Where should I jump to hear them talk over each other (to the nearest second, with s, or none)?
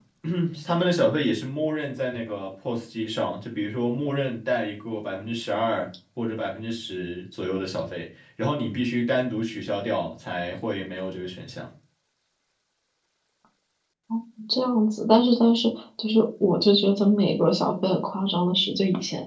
none